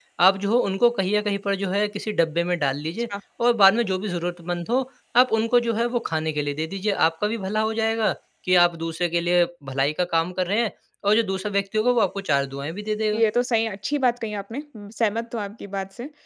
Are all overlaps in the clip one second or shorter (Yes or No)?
Yes